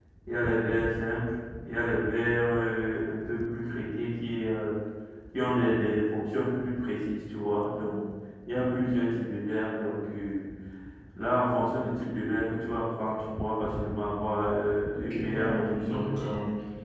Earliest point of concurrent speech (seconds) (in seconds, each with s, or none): 15.1 s